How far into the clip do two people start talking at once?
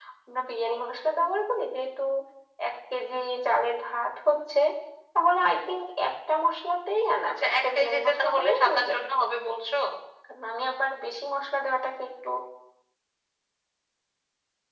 7.3 s

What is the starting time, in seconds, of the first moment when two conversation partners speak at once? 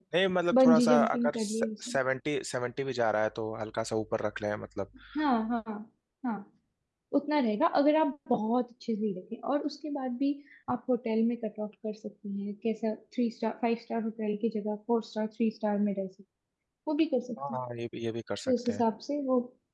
0.6 s

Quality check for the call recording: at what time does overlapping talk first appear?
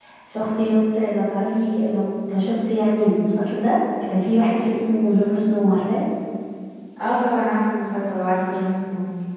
none

